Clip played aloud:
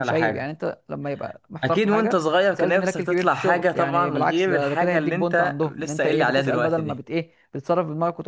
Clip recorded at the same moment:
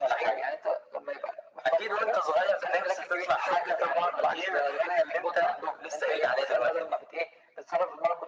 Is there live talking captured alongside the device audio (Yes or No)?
No